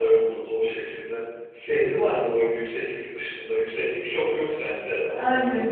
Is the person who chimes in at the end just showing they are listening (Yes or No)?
No